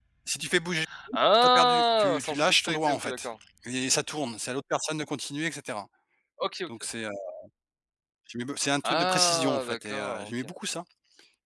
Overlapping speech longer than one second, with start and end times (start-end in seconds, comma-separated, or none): 1.1-3.3, 8.8-10.4